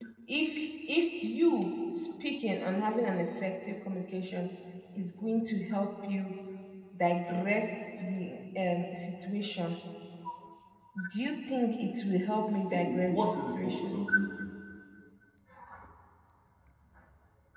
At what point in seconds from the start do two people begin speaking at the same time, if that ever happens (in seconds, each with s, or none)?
12.7 s